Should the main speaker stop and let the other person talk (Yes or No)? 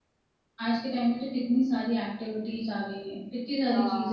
Yes